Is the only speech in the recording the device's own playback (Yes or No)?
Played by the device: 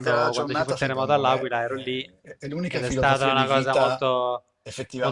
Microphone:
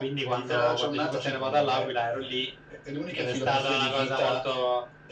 Yes